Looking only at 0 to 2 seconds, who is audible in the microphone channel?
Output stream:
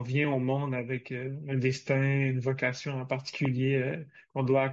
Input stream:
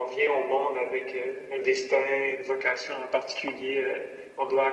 echo only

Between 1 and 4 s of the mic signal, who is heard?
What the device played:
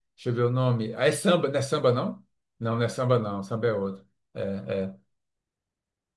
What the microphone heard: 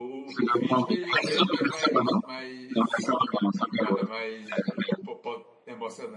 both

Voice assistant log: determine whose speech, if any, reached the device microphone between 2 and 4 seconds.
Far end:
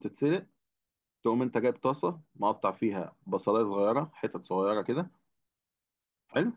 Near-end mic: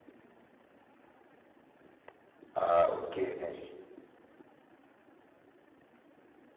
user only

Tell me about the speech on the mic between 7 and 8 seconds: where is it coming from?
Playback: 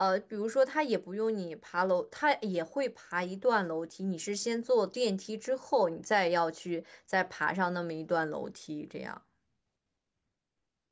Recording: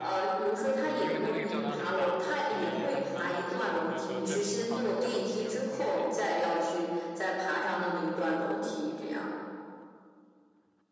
echo only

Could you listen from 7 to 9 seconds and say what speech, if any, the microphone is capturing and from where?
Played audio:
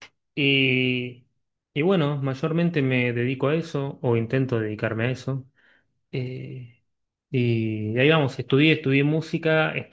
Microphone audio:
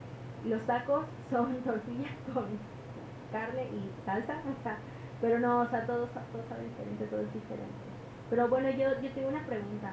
user only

